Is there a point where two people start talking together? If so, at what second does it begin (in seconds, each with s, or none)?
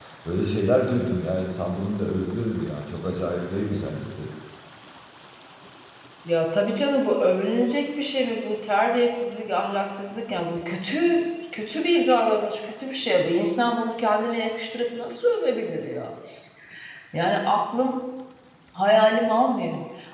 none